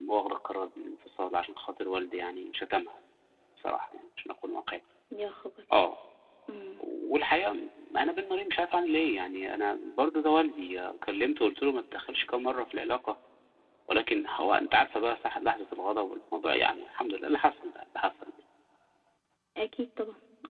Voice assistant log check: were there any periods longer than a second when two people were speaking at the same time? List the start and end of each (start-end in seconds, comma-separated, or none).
none